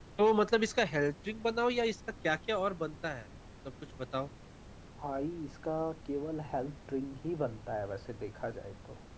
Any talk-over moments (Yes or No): No